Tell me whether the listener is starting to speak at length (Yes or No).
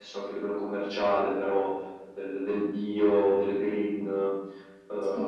No